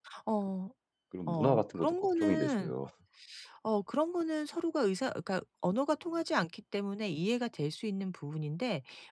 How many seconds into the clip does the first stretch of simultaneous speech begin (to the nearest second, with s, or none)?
1 s